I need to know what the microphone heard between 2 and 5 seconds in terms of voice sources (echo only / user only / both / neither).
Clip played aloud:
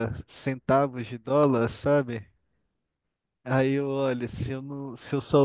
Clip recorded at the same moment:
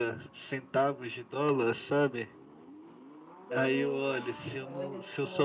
both